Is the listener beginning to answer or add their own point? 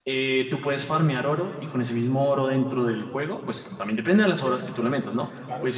No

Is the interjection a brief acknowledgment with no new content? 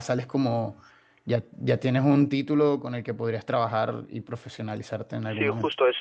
No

